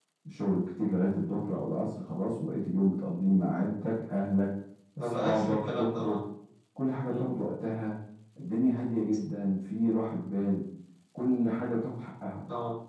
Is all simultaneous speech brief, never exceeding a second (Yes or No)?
No